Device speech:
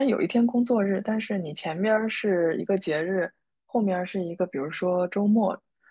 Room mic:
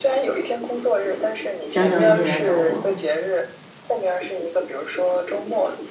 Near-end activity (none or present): present